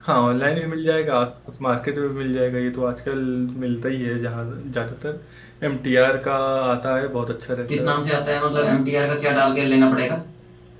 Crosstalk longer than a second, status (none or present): none